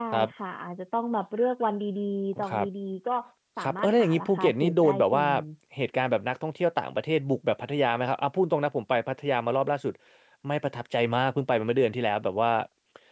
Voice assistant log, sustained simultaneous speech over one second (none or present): present